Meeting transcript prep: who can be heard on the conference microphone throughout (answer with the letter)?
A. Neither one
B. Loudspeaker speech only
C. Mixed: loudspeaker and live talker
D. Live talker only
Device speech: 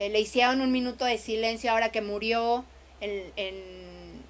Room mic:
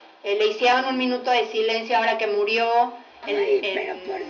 C